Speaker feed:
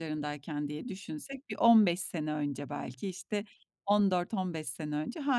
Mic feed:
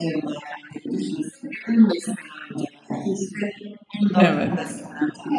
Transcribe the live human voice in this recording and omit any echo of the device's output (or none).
Evet.